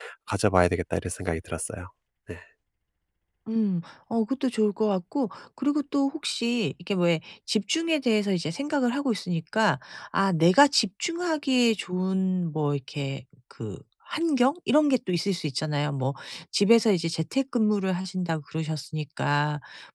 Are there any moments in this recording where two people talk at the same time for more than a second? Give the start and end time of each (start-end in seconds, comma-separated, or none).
none